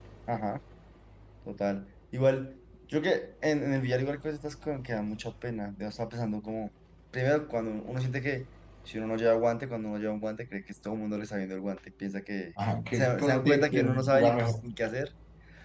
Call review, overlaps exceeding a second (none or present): present